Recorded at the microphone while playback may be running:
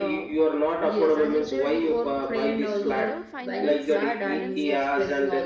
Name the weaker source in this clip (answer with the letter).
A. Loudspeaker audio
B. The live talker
B